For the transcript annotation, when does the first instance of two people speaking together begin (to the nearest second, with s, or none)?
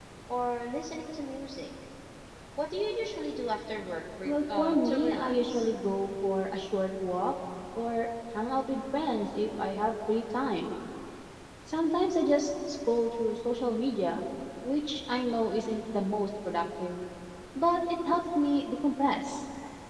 4 s